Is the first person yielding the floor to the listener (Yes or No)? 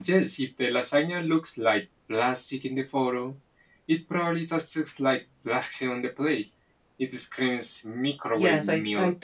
Yes